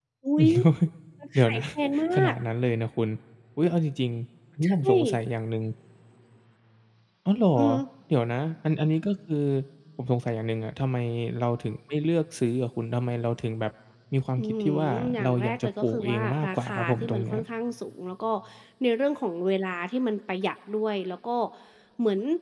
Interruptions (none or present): present